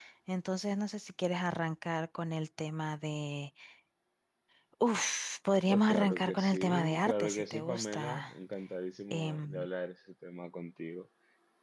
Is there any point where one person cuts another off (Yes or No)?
Yes